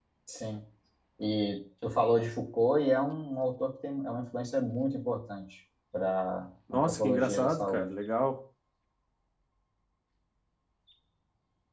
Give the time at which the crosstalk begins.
6.7 s

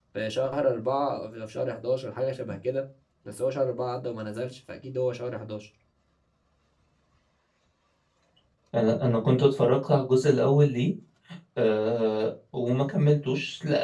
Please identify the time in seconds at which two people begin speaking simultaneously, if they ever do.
none

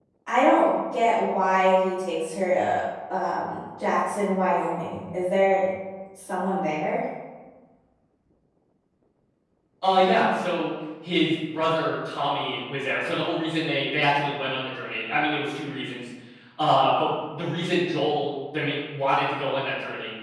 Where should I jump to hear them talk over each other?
none

